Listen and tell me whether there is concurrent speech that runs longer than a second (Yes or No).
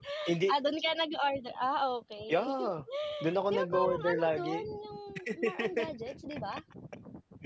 Yes